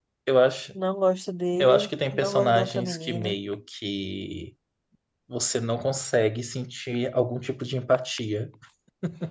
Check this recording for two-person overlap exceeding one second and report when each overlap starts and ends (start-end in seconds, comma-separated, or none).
1.6-3.4